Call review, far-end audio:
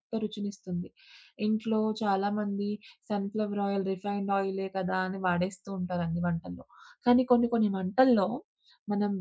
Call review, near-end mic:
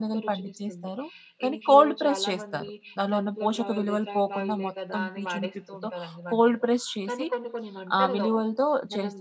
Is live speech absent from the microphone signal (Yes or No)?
No